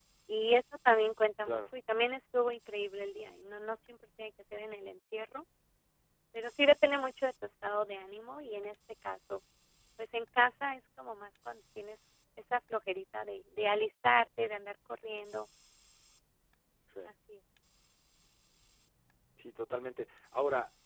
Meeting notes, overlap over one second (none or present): none